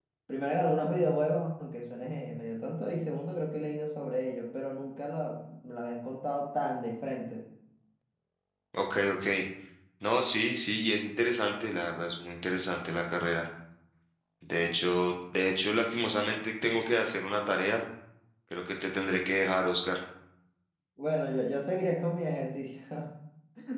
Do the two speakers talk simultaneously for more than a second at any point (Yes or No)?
No